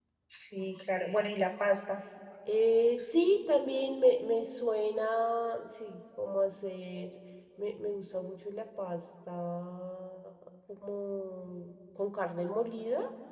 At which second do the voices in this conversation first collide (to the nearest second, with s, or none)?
none